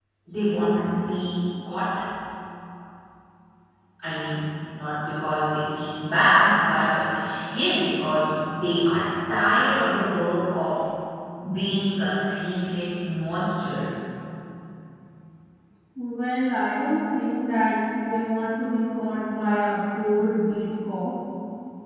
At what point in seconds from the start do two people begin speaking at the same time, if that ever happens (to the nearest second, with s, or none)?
none